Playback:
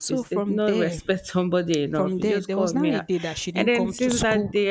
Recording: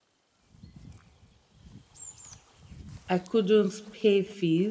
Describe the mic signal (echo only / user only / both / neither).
user only